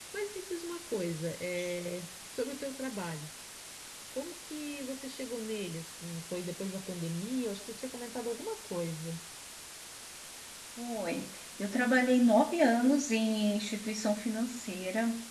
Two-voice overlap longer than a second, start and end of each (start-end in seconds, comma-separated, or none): none